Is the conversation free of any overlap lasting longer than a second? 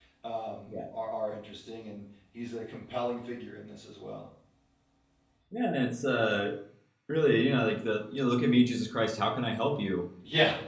Yes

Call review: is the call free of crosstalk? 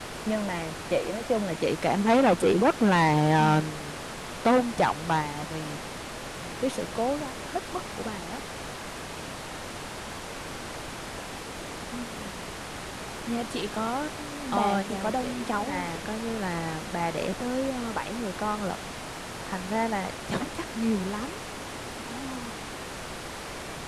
No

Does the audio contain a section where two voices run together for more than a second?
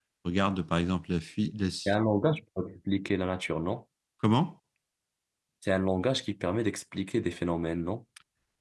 No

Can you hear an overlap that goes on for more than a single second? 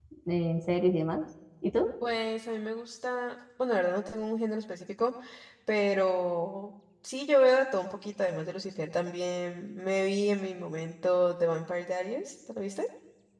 No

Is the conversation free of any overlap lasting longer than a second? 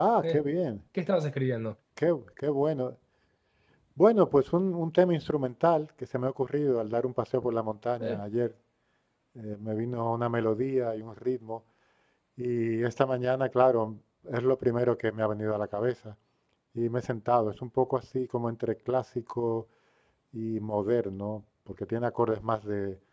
Yes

